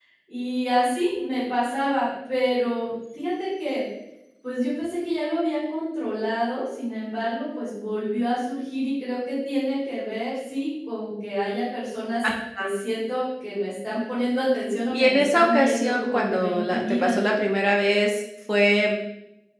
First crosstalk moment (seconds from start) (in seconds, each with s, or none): 14.9 s